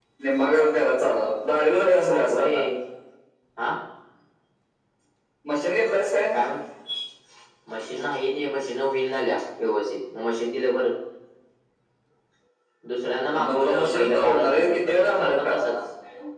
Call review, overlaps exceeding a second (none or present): present